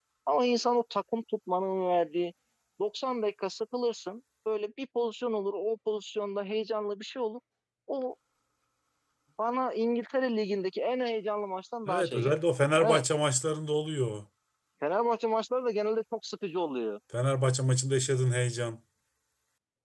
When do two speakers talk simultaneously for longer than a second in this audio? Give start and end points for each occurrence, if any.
none

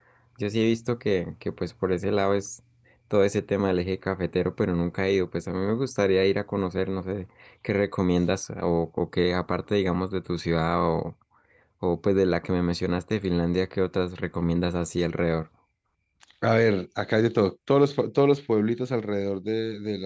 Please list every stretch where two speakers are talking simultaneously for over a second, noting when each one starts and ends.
none

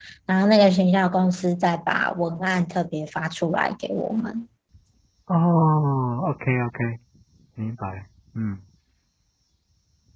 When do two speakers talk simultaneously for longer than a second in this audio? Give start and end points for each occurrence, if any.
none

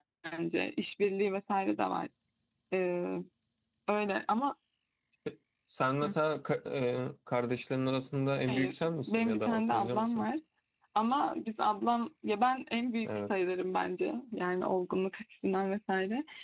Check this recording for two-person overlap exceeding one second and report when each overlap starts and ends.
8.5-10.2

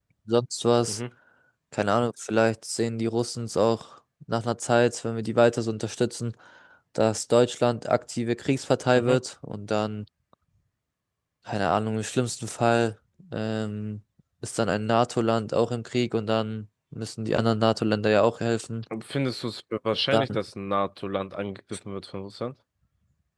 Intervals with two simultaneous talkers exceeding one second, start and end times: none

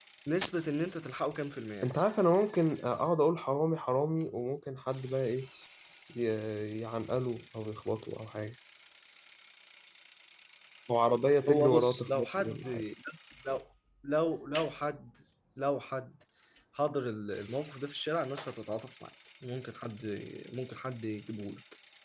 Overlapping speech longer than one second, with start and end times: 11.5-12.7

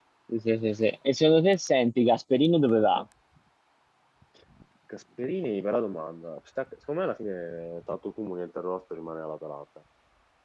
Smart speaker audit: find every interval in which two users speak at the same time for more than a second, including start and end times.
none

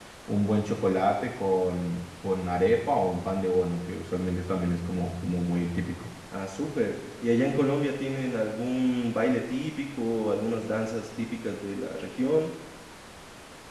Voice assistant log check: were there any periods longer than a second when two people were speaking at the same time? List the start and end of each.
none

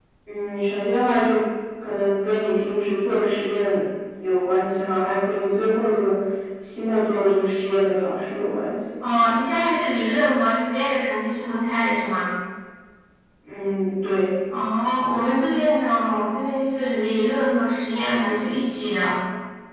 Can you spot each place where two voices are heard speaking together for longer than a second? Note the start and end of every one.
none

